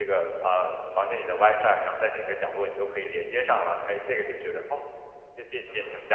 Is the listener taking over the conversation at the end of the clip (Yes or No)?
Yes